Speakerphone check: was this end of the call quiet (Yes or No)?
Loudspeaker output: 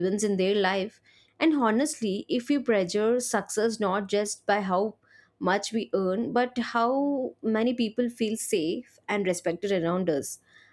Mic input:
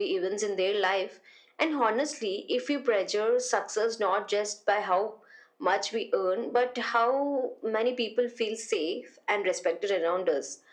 Yes